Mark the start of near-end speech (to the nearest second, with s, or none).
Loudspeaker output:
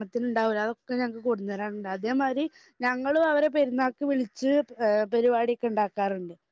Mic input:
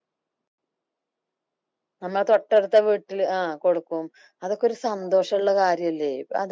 2 s